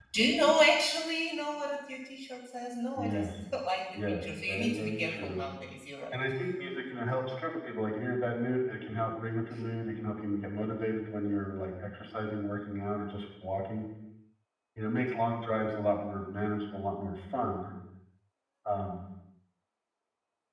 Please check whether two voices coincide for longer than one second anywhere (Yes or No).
Yes